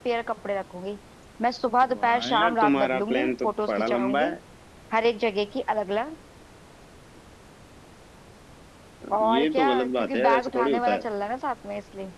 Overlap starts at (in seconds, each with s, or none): 1.9 s